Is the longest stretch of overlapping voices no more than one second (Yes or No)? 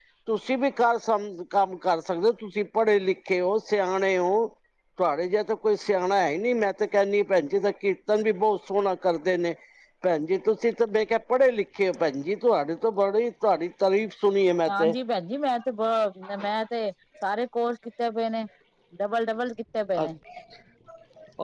Yes